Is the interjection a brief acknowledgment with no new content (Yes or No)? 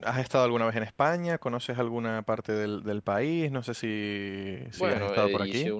No